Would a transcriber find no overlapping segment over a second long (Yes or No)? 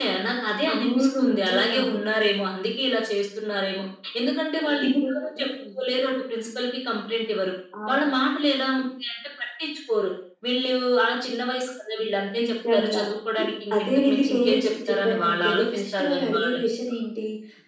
No